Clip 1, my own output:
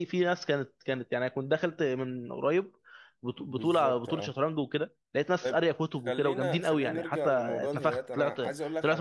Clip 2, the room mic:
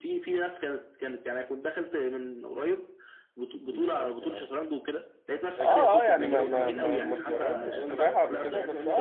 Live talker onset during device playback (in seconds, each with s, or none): 5.5 s